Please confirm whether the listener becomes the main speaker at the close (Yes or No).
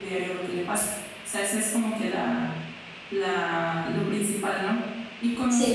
No